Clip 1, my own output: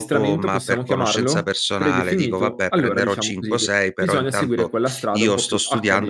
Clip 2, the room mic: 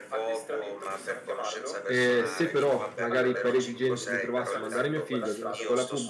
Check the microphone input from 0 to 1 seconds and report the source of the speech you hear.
echo only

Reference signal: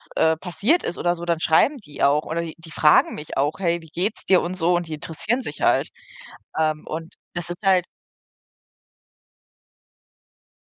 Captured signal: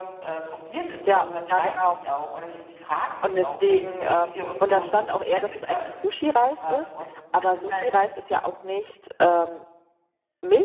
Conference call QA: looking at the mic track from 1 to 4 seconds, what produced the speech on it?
both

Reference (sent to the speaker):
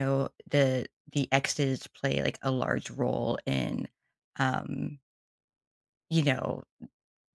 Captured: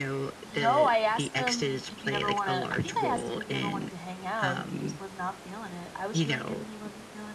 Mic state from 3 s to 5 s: both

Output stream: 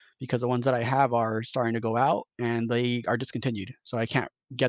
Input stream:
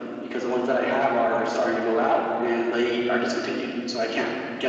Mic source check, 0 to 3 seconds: echo only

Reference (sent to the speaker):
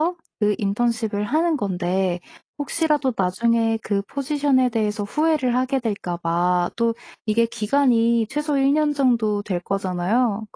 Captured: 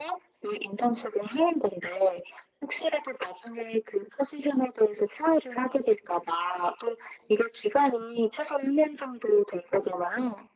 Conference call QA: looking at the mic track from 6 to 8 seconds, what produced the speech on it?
echo only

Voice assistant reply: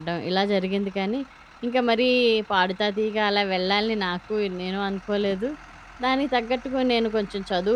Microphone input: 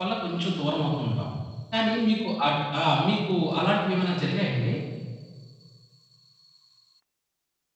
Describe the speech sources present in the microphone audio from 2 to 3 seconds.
user only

